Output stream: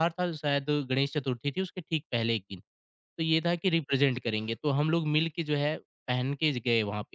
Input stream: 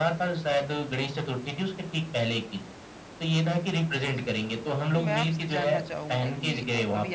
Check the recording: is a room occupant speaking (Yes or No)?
Yes